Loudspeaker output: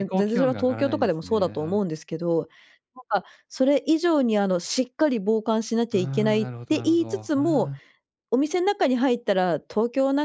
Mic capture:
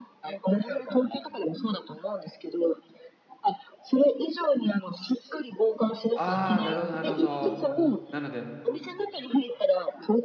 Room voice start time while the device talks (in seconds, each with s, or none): 6.1 s